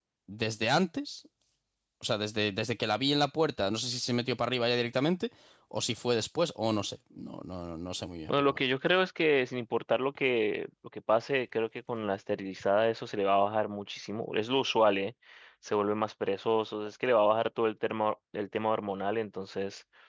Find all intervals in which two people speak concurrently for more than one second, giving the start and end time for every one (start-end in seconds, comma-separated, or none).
none